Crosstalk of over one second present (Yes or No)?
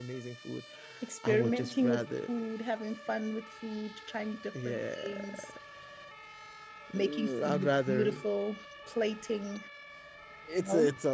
Yes